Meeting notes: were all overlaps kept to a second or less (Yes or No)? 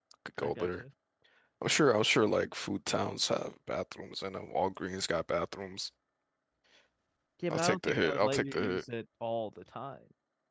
No